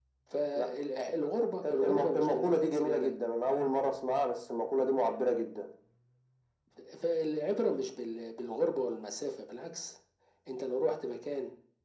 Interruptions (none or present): present